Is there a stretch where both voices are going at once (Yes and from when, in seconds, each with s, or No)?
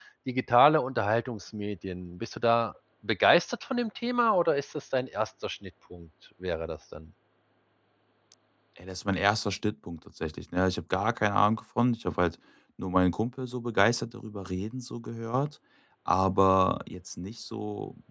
No